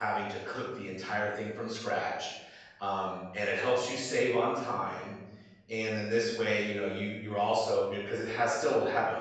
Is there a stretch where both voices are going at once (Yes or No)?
No